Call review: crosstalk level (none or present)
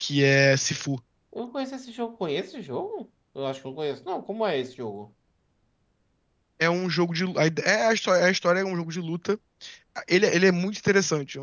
none